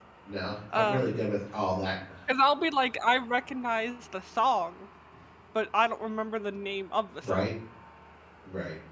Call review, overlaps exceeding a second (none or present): none